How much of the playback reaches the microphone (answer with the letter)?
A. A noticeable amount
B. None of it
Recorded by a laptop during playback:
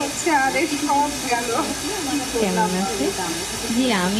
A